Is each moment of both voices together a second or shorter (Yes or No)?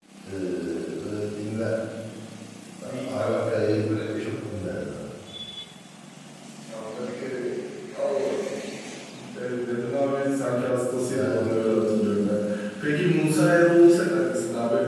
No